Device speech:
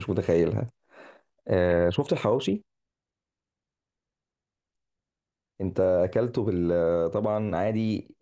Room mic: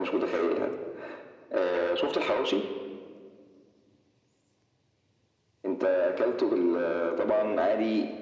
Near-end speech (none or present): none